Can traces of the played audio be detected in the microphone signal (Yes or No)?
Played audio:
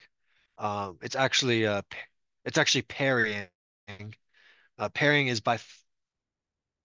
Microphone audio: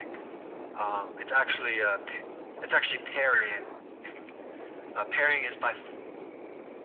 Yes